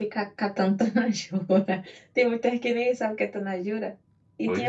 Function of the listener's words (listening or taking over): listening